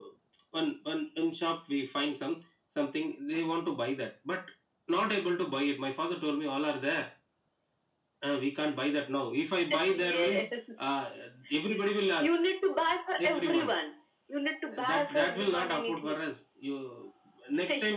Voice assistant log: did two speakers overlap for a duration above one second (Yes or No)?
Yes